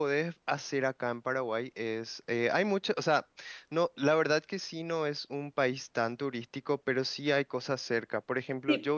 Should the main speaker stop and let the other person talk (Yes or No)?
Yes